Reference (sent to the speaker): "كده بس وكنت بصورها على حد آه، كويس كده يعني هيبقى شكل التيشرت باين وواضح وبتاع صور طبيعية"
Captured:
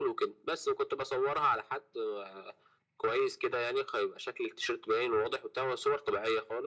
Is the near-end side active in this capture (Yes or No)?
No